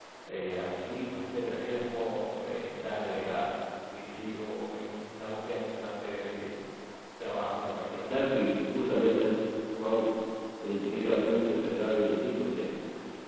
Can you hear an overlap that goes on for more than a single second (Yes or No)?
No